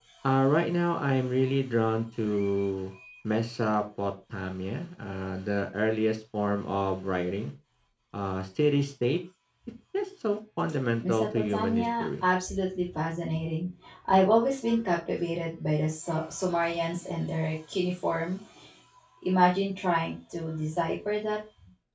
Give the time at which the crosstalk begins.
11.0 s

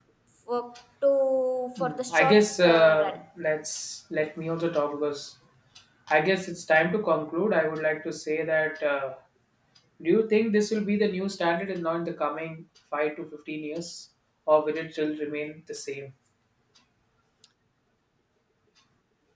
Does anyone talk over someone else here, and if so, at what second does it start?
1.8 s

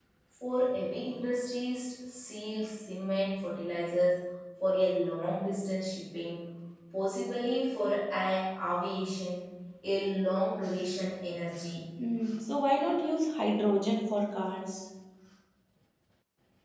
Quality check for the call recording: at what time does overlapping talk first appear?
none

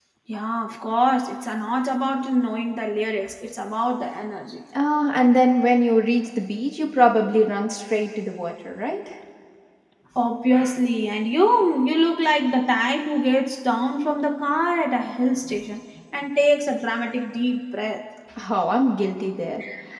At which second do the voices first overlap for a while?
none

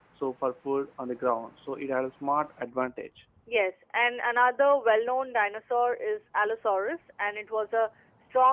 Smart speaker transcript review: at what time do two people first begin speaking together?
none

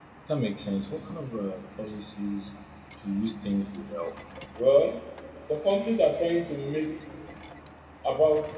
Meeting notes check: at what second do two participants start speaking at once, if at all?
none

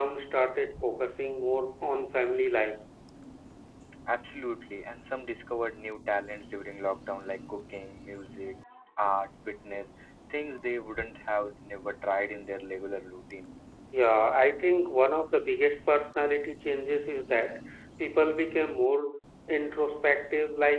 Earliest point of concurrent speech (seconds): none

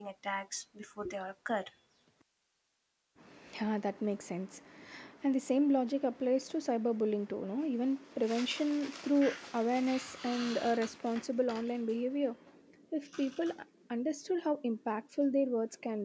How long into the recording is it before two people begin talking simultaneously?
none

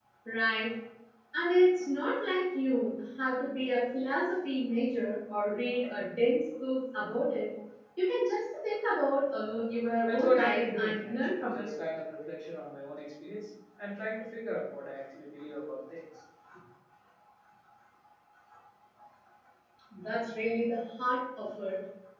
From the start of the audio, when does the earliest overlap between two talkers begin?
10.1 s

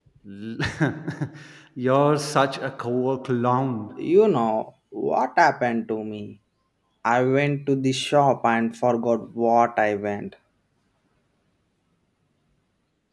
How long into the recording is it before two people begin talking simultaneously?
none

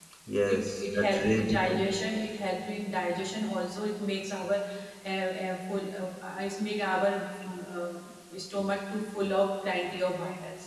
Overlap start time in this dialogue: 0.5 s

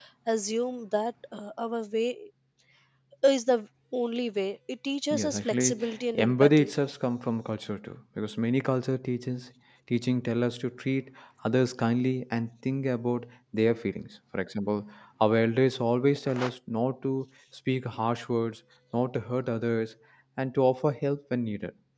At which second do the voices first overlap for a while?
5.1 s

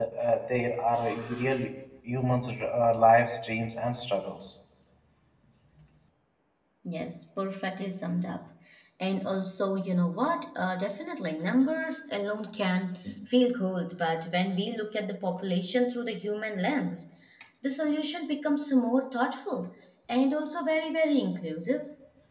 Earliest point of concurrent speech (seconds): none

